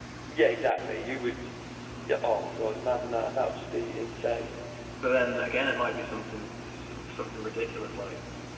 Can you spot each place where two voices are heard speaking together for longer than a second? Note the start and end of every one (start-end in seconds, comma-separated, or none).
none